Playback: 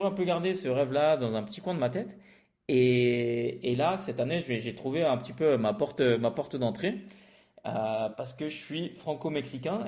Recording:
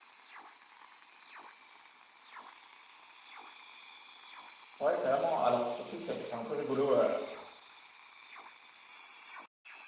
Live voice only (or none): ouais, carrément. Alors surtout, c'est c'est un peu rigolo, heu,